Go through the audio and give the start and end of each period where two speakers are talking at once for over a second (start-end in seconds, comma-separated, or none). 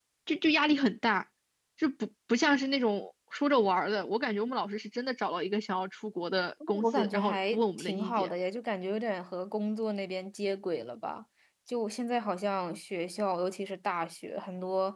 6.8-8.3